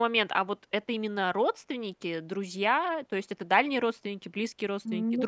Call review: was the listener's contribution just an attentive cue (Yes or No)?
No